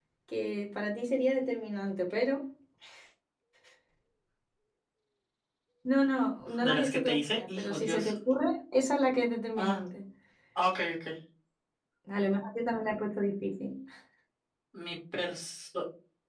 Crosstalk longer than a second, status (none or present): present